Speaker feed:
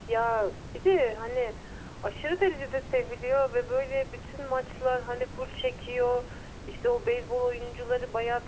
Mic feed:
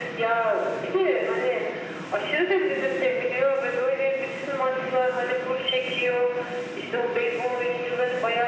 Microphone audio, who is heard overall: echo only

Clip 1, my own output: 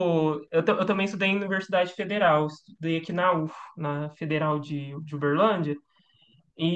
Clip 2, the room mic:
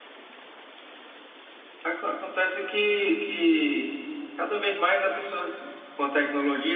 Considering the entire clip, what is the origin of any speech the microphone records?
user only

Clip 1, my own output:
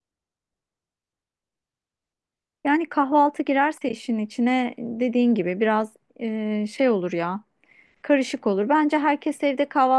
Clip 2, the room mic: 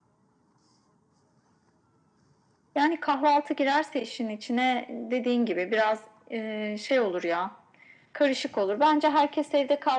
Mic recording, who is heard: echo only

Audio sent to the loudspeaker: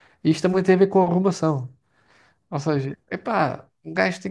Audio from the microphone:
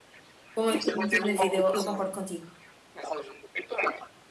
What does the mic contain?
both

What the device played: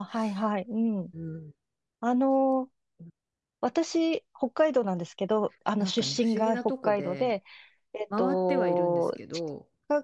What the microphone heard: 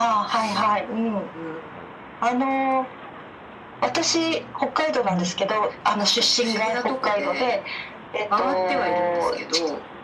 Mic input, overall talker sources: both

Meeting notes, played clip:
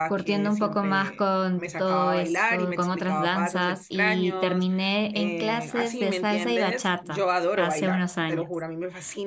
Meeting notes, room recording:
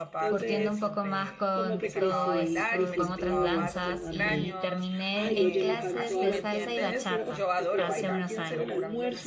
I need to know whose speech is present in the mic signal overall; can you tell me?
both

